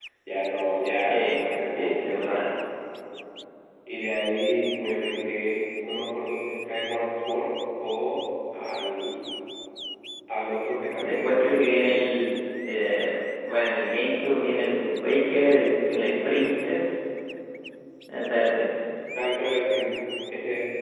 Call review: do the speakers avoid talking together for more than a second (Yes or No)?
No